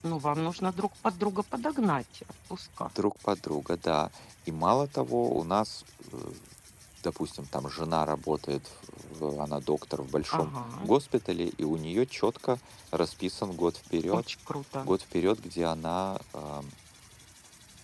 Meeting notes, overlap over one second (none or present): none